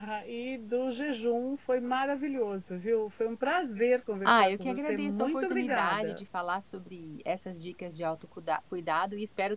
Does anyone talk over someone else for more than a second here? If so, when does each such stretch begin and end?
4.3-6.2

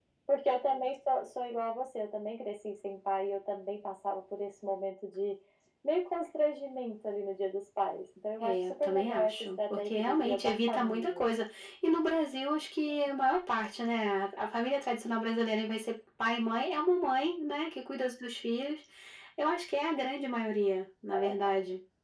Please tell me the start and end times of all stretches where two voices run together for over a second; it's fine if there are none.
8.4-11.3

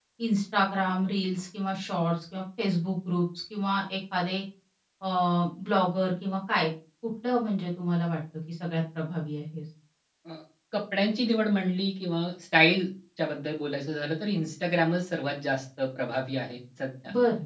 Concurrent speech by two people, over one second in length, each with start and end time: none

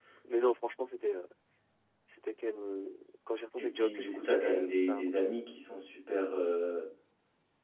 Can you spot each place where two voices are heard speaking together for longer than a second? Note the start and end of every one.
3.6-5.3

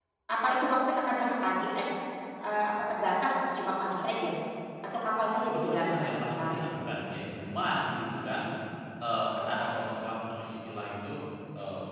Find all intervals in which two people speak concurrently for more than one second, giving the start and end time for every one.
5.3-6.7

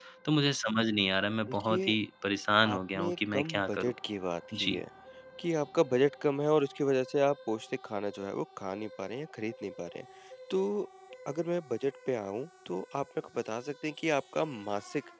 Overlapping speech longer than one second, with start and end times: 2.7-3.9

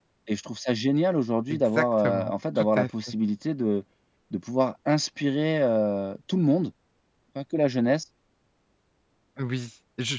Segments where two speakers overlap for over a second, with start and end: 1.5-2.9

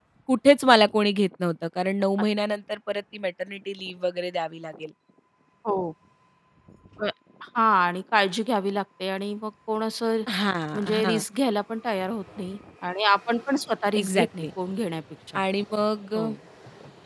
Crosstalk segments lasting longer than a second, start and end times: none

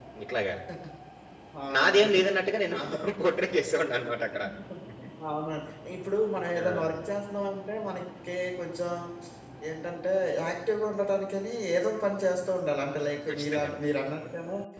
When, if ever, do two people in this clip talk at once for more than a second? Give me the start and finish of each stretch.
none

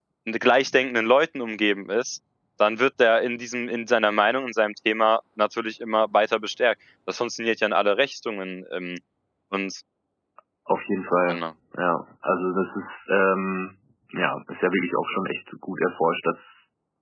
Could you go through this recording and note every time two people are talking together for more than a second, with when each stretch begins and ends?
none

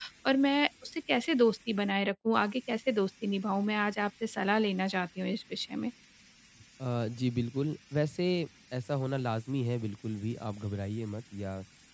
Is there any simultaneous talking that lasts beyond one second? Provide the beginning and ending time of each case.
none

